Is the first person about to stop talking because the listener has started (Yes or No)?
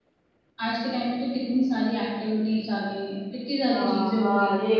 Yes